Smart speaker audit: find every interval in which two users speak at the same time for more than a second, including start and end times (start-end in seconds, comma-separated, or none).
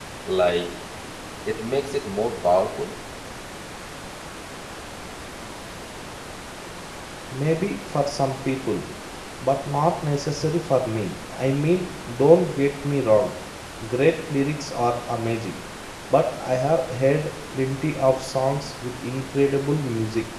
none